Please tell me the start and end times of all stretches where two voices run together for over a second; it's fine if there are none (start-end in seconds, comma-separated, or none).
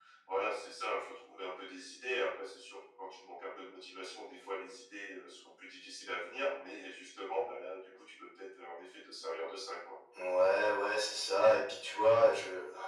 none